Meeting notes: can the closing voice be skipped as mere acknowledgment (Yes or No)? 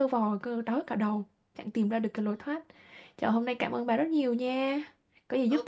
No